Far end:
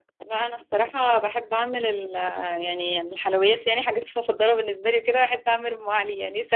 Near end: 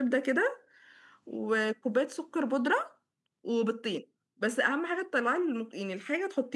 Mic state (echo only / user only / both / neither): user only